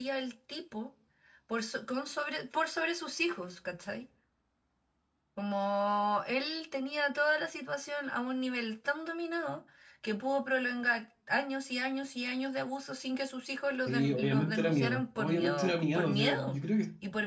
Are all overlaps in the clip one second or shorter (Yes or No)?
No